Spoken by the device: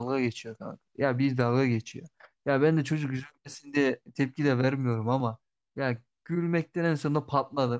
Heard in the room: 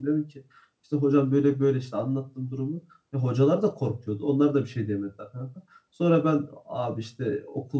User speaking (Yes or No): Yes